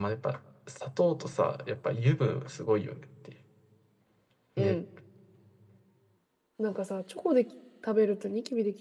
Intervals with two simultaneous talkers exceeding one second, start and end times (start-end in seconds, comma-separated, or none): none